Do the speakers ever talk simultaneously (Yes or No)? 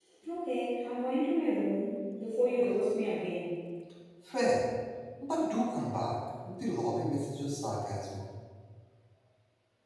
No